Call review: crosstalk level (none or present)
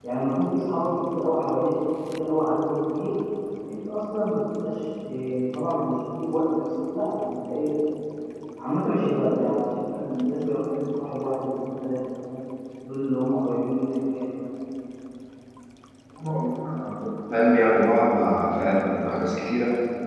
none